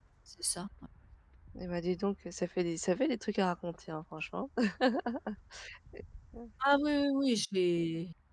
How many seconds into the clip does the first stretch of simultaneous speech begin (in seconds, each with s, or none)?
none